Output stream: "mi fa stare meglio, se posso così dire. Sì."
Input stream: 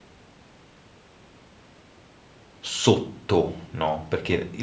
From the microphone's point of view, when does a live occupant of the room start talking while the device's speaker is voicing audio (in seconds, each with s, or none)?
2.6 s